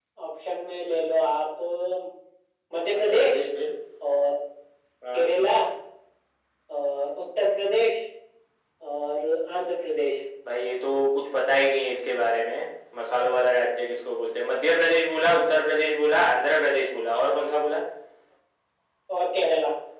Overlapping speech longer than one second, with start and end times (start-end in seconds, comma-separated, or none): none